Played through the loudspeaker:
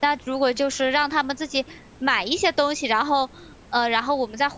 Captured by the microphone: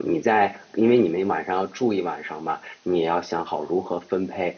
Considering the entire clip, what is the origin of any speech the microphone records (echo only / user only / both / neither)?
user only